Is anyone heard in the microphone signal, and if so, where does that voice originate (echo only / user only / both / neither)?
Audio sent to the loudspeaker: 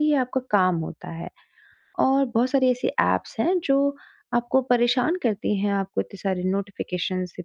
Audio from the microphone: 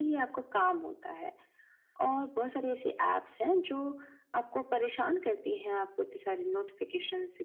echo only